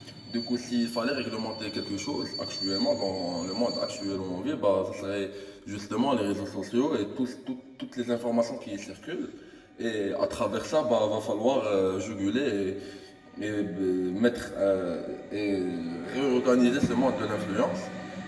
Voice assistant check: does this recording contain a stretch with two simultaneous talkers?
No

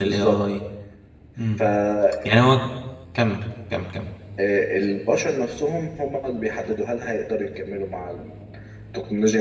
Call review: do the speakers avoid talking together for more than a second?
Yes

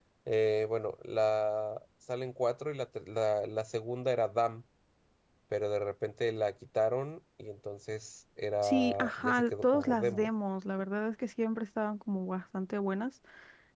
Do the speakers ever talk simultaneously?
Yes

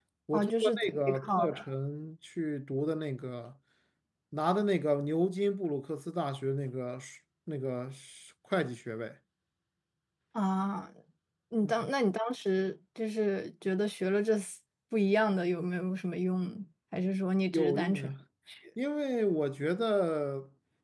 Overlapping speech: Yes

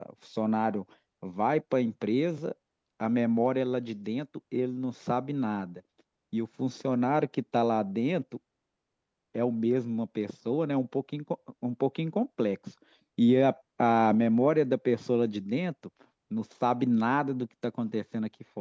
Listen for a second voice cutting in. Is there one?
No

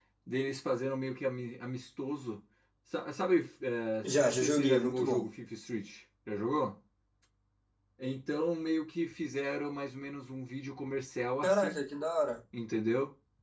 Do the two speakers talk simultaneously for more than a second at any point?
Yes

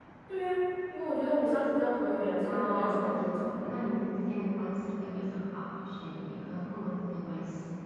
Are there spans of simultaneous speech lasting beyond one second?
Yes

